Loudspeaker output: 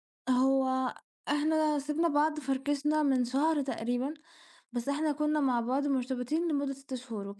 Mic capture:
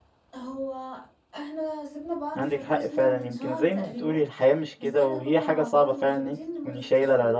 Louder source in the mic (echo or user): user